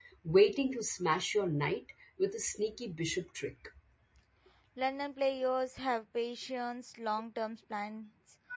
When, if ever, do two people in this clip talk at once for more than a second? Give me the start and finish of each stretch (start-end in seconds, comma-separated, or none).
none